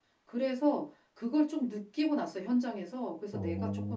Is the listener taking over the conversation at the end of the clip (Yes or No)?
No